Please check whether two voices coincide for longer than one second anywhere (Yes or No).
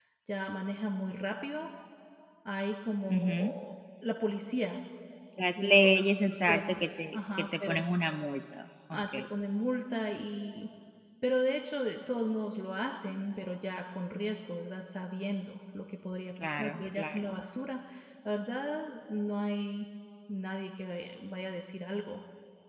Yes